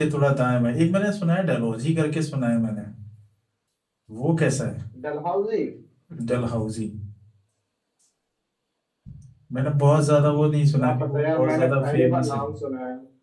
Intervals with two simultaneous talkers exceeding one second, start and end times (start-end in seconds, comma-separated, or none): 10.8-12.4